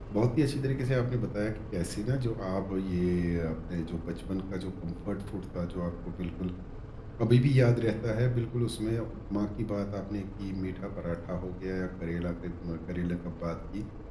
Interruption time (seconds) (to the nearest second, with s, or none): none